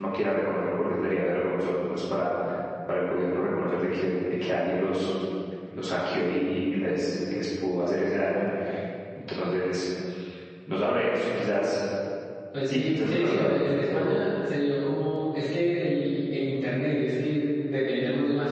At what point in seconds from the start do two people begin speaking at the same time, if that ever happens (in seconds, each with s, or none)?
12.6 s